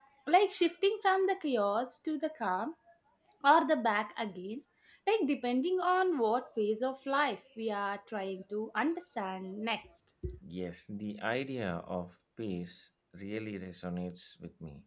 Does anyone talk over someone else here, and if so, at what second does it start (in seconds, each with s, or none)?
none